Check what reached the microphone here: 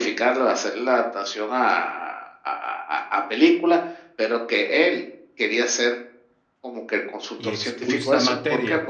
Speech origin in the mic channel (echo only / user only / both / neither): both